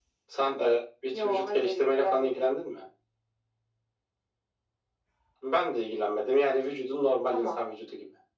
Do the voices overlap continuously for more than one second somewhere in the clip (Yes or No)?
Yes